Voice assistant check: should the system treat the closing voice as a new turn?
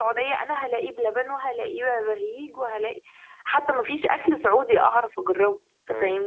Yes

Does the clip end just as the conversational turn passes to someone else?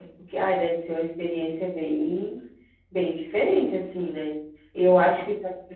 No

